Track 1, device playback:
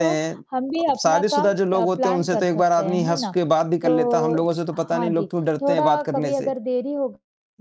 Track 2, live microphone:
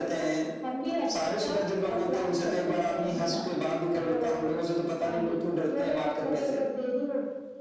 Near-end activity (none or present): none